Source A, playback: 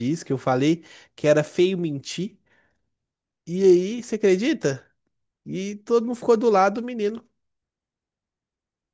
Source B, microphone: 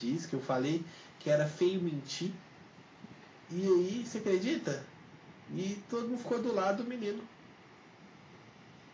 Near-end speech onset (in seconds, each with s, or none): none